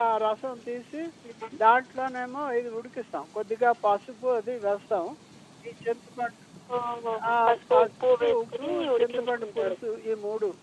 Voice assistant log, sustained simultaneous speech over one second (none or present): present